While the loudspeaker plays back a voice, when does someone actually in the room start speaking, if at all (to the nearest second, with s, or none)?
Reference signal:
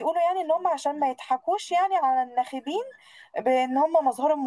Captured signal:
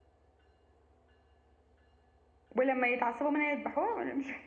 3 s